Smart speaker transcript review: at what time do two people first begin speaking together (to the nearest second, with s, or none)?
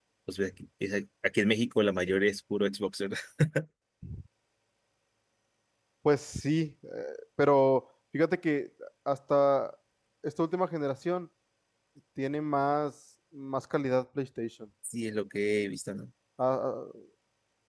none